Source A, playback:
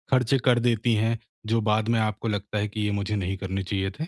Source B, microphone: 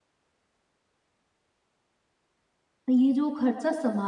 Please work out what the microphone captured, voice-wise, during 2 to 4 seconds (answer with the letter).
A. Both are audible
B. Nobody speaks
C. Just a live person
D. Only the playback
C